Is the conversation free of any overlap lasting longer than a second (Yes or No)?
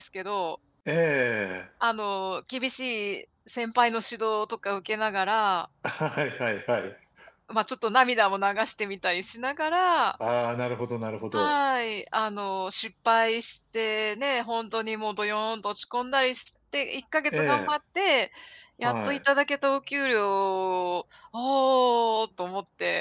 Yes